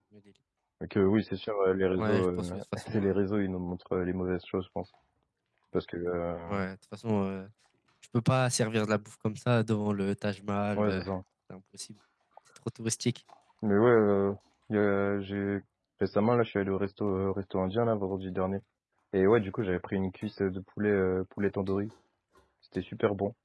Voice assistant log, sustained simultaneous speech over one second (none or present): present